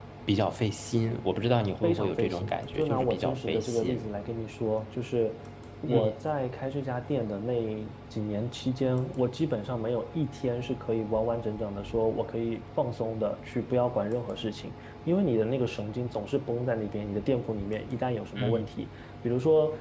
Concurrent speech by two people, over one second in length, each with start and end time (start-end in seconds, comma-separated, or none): 1.8-4.0